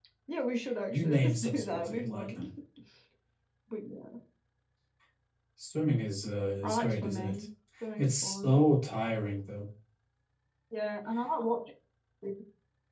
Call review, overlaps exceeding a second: present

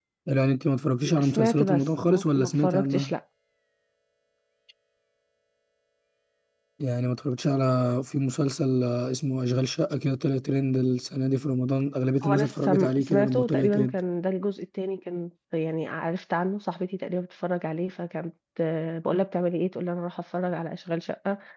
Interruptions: present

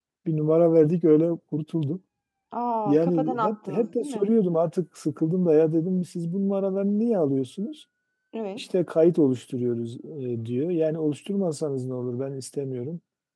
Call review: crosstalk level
present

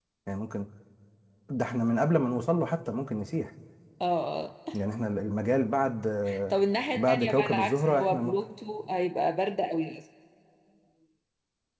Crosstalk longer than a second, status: present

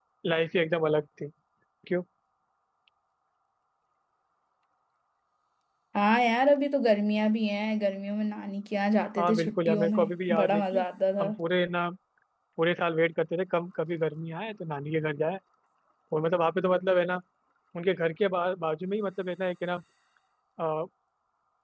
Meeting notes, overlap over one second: present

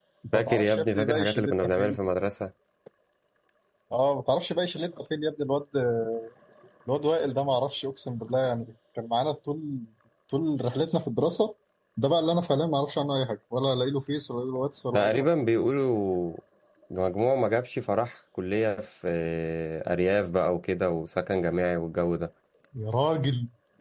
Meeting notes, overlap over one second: present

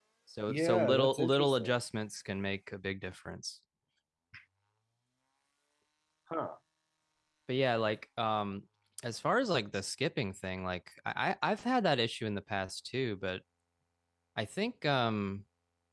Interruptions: present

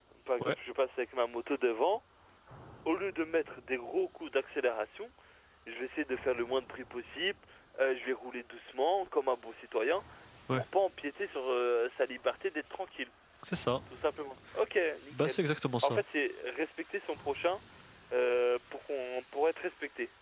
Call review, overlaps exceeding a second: none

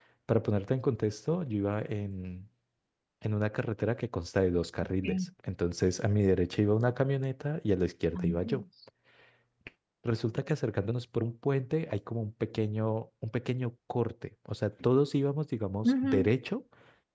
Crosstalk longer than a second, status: none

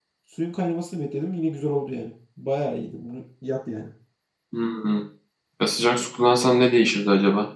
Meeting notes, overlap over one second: none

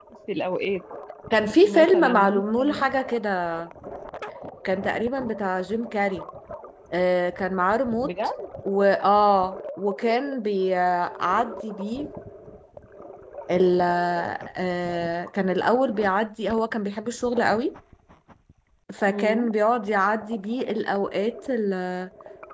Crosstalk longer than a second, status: present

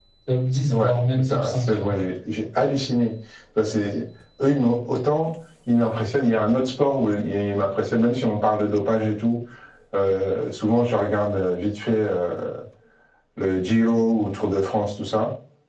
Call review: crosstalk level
present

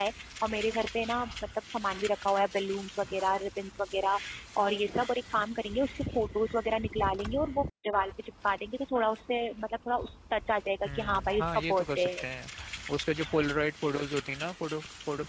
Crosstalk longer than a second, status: present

